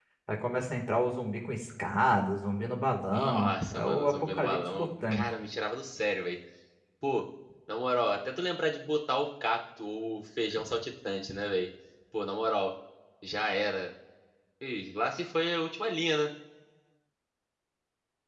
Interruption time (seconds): 3.1 s

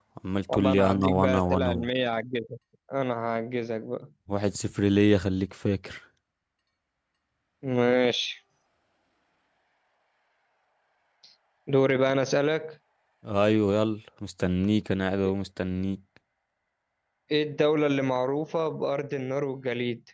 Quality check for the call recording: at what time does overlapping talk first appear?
0.5 s

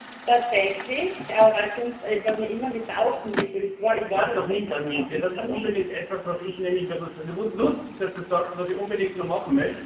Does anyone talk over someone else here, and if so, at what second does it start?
4.0 s

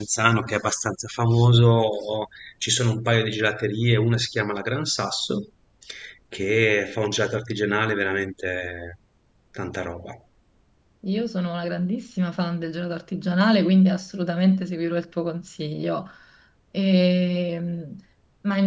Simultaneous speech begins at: none

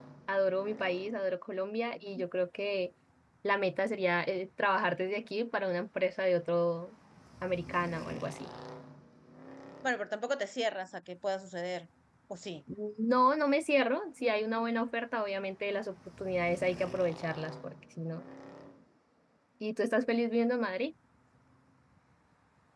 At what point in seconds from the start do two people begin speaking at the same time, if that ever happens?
none

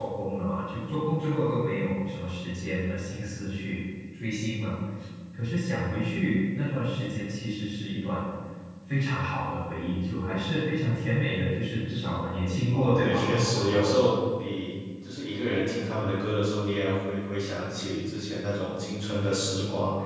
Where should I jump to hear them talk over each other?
12.7 s

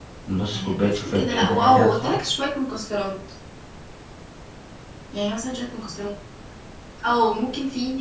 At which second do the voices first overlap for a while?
0.5 s

